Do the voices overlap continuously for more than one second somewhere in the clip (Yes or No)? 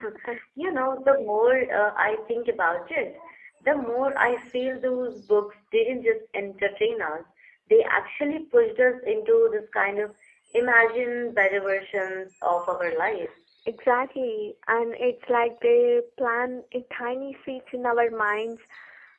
No